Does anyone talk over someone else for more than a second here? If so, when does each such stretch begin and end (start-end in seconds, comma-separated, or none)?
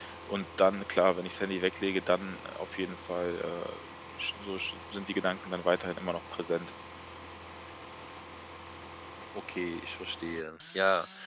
none